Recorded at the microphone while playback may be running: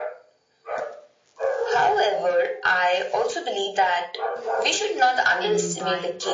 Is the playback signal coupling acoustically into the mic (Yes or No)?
Yes